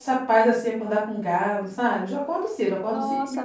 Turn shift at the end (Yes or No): No